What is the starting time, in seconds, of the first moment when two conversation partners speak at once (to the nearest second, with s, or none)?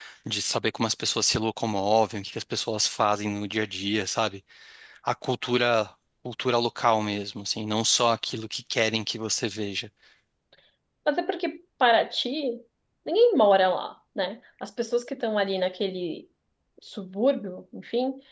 none